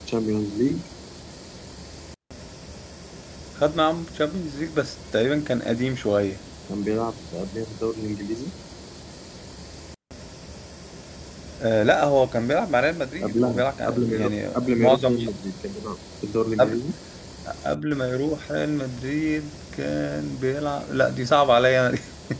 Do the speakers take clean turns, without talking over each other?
No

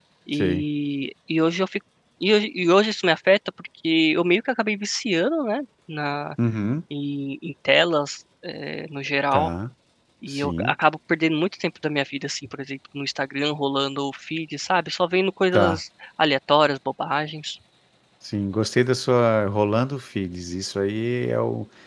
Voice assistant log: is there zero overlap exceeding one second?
Yes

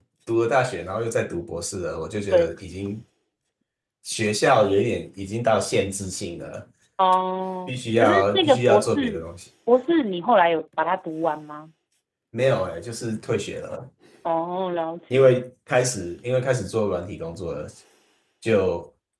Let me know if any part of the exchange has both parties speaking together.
Yes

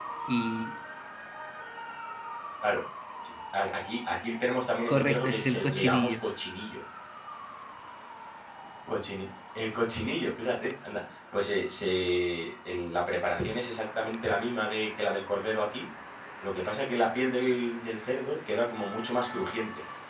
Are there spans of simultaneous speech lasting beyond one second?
Yes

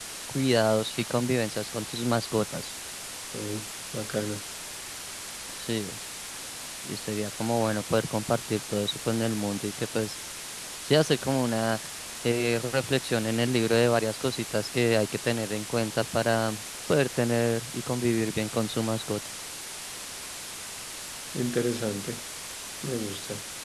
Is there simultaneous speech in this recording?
No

